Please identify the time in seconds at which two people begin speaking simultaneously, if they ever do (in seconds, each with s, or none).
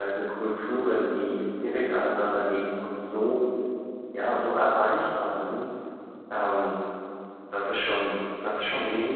none